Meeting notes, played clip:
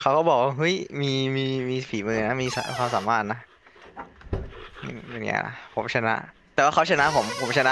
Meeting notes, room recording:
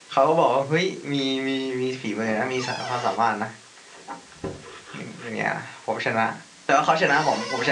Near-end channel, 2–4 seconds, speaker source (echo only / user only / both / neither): echo only